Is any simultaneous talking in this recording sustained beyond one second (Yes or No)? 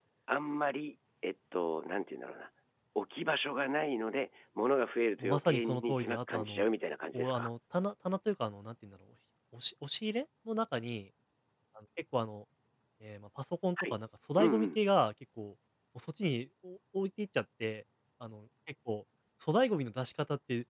Yes